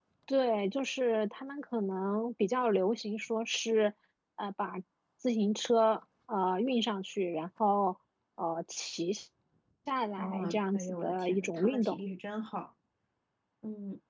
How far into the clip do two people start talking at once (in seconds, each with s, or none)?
10.2 s